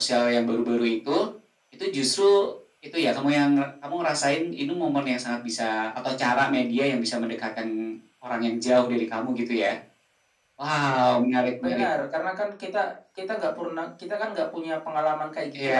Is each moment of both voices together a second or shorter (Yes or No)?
Yes